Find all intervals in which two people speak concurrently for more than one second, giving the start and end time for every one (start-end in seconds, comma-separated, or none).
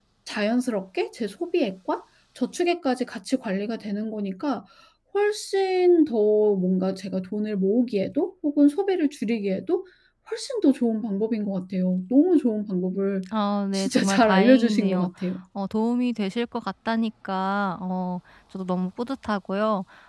13.7-15.1